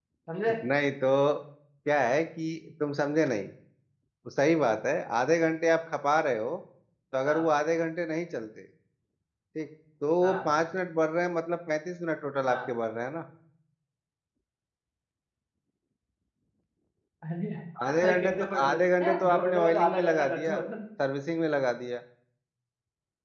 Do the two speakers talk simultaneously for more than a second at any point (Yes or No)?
Yes